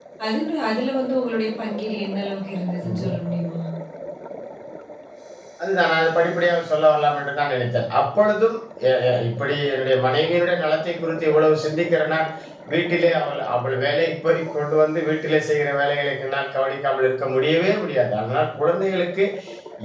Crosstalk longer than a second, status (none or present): none